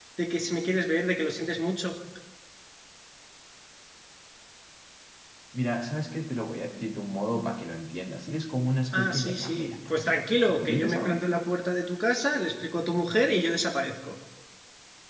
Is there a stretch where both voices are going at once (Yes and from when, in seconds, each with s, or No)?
Yes, from 8.9 s